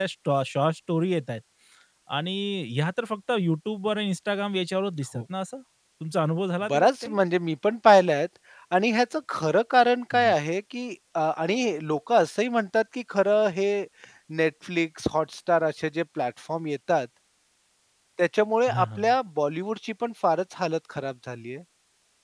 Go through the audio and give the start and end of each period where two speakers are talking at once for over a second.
none

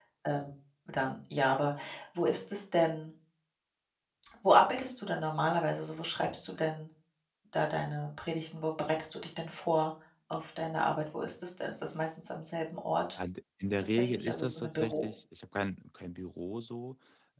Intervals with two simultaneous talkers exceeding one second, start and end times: 13.8-15.1

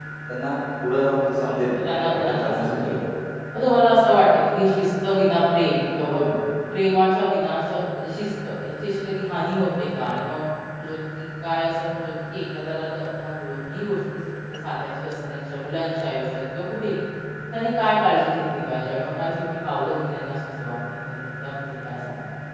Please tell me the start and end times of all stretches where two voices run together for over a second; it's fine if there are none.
1.7-3.0

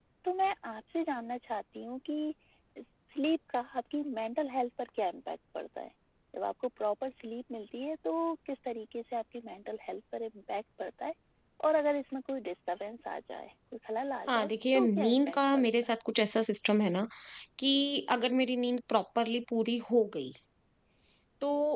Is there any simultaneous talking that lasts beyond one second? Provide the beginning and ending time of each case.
14.3-15.7

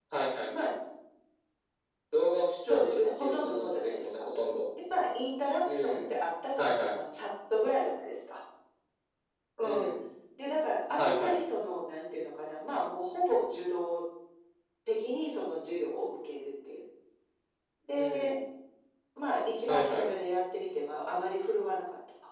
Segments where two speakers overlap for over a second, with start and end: 2.7-4.2

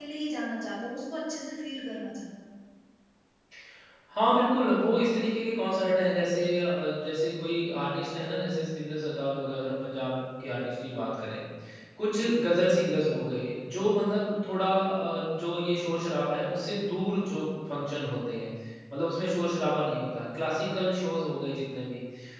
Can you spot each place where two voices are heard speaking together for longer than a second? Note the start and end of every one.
none

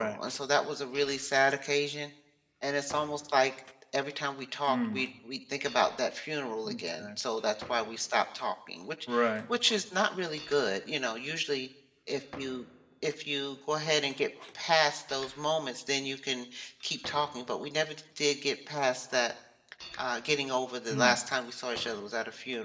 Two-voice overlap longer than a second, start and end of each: none

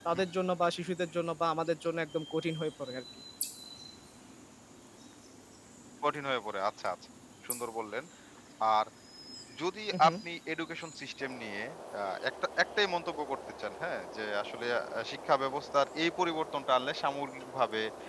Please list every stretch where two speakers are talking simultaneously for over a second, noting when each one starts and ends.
none

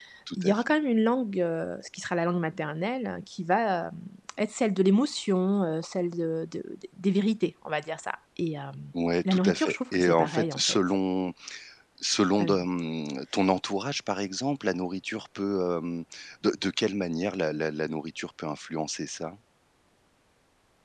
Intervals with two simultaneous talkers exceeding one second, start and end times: 9.3-10.8

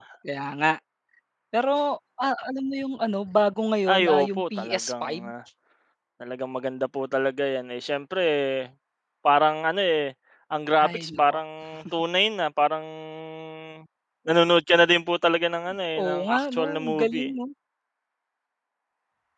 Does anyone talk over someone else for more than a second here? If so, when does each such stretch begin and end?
3.9-5.2, 16.0-17.3

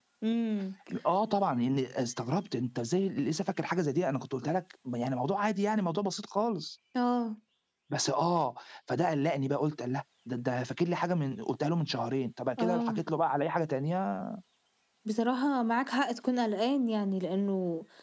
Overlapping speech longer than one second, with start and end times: none

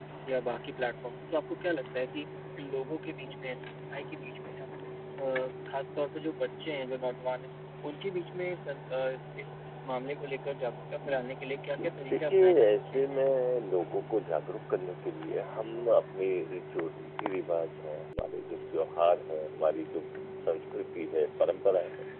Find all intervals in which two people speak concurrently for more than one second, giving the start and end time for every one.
11.6-13.1

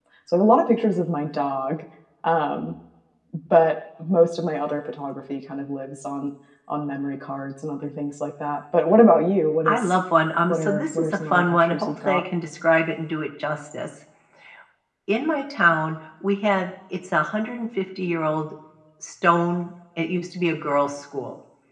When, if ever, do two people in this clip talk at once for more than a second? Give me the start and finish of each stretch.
10.5-12.2

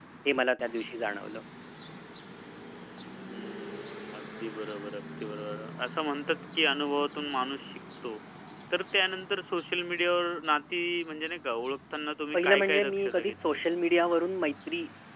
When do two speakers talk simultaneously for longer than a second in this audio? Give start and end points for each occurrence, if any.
12.3-13.6

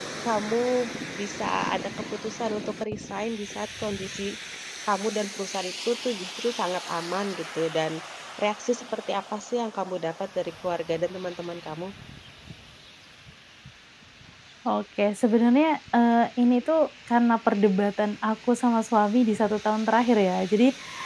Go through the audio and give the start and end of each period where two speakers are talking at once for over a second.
none

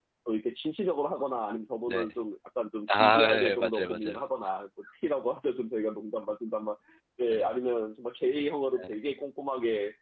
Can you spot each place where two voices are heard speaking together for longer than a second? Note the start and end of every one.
2.9-4.2

